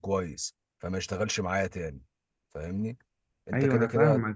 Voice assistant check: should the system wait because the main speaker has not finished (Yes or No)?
No